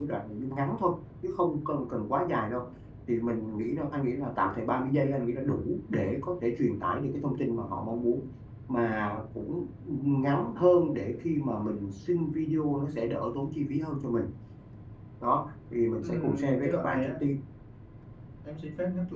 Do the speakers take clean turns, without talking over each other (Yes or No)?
No